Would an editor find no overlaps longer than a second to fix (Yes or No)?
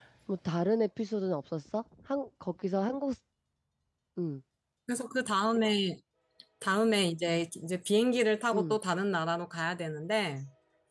Yes